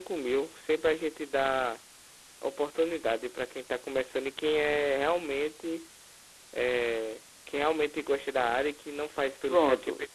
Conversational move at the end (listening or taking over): taking over